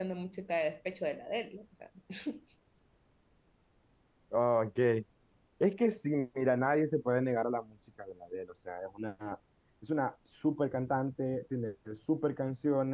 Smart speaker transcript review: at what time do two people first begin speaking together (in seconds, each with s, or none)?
none